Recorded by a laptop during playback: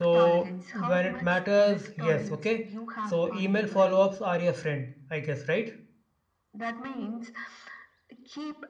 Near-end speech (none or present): present